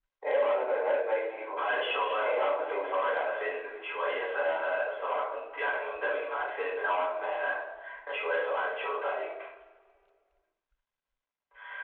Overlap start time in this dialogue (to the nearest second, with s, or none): 2 s